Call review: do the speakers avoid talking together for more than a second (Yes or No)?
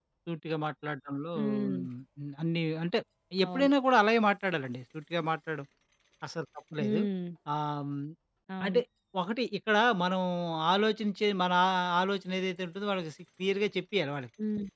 Yes